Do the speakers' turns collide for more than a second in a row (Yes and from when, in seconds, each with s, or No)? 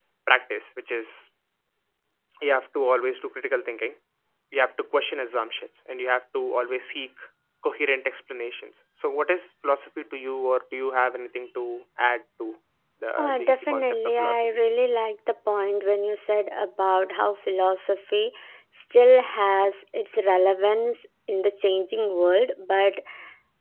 Yes, from 13.2 s